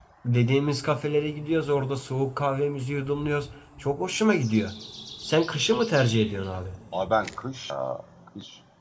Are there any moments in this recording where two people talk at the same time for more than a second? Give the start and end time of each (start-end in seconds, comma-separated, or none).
none